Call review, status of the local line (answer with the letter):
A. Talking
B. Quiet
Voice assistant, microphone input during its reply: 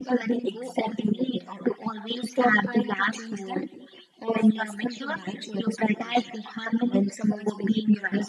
B